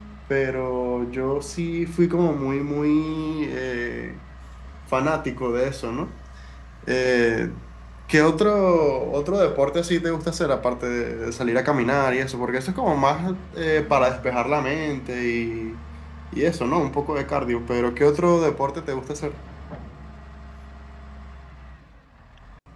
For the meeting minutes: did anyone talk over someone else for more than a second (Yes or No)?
No